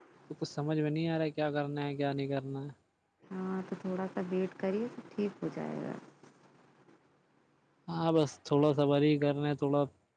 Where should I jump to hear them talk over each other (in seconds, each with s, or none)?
none